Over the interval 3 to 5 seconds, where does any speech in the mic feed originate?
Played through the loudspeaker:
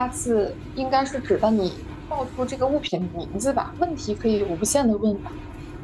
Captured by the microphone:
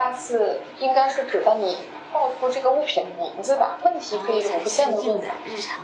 both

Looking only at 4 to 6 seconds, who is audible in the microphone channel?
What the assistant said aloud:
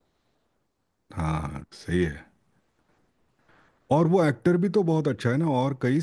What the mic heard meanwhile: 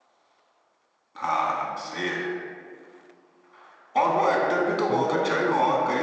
both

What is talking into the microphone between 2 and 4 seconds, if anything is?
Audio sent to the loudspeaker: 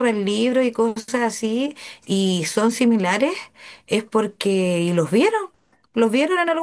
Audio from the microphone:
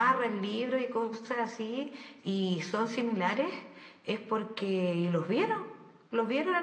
echo only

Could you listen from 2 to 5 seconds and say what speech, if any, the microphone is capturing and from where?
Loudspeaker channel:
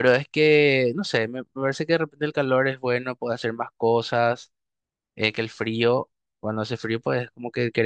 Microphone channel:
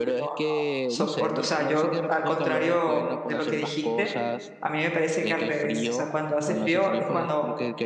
both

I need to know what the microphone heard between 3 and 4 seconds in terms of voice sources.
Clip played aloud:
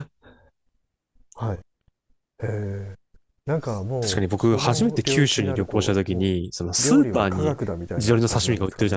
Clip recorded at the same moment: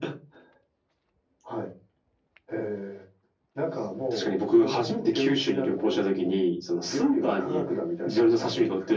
echo only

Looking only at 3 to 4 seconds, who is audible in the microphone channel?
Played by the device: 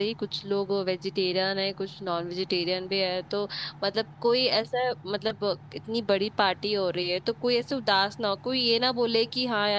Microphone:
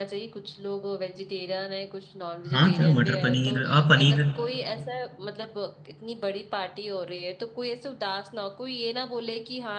both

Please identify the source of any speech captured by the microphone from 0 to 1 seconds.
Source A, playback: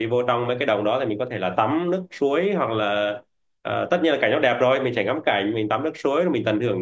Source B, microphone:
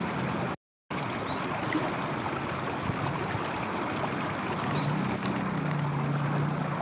neither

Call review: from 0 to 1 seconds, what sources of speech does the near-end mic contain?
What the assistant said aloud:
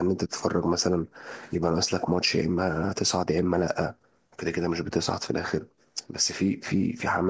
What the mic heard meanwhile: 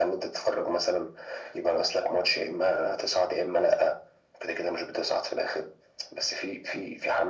echo only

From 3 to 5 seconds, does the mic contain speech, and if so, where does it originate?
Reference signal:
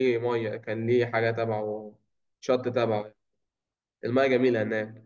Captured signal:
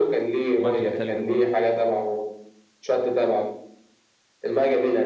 echo only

